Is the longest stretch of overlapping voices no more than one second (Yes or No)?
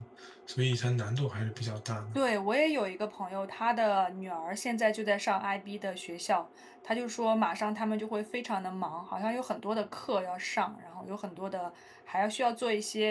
Yes